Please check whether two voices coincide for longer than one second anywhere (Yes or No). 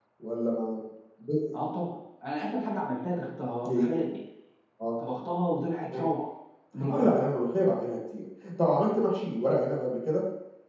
No